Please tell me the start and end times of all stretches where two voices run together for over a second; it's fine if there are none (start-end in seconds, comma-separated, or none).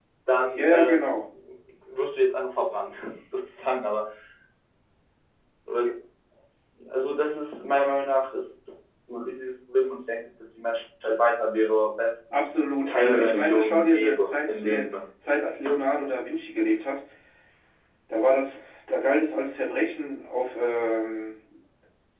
12.9-14.8